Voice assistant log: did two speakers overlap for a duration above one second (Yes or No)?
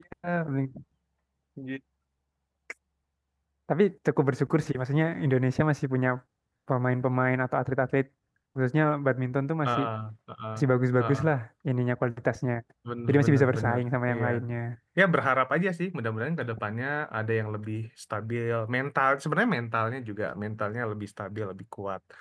Yes